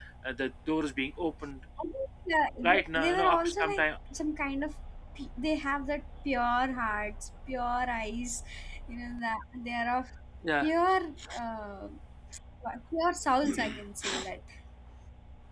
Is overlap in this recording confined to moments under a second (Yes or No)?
No